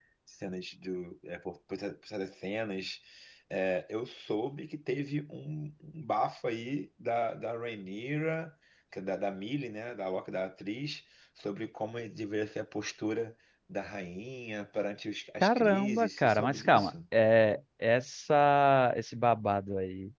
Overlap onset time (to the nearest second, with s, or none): 15 s